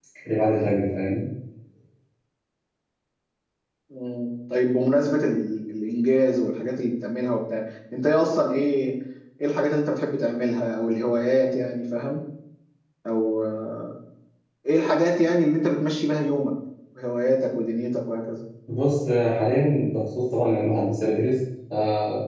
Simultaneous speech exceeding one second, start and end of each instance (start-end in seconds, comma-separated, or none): none